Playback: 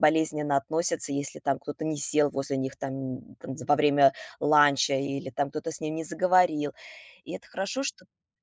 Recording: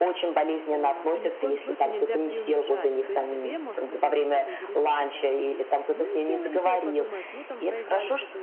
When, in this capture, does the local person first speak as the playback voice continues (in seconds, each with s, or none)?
0.6 s